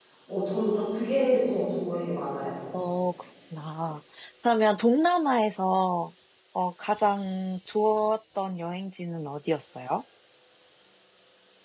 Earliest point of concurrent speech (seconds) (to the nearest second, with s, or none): none